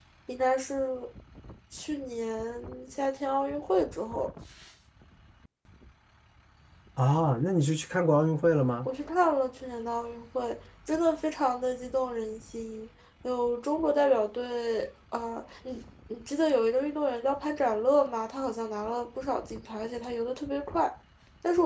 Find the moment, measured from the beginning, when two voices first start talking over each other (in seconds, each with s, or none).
none